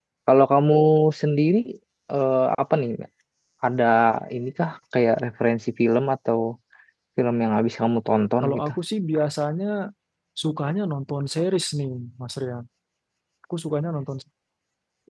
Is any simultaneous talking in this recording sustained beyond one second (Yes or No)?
No